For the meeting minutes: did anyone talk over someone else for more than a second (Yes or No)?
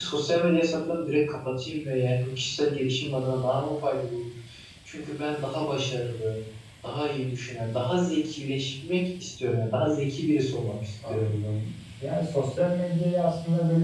No